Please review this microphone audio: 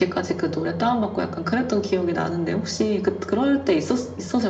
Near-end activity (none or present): none